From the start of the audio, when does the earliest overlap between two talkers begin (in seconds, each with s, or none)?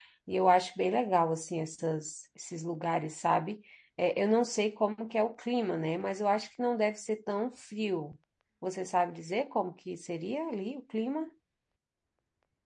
none